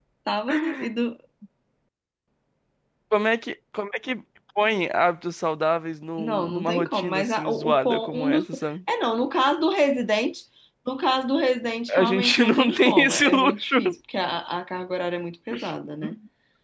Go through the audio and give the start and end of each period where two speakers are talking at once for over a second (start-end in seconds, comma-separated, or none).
6.2-8.5, 11.9-13.8